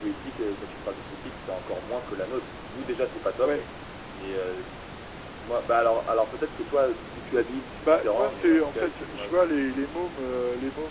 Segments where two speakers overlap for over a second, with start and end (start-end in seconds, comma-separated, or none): 7.8-9.4